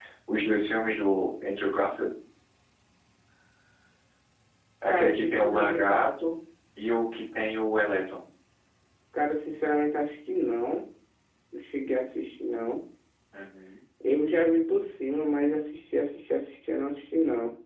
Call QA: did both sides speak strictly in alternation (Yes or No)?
No